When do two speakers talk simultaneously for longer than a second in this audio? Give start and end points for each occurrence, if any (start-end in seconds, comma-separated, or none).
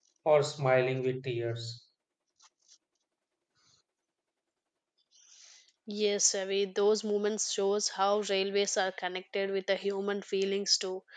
none